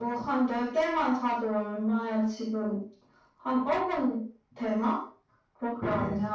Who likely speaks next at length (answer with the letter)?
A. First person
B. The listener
B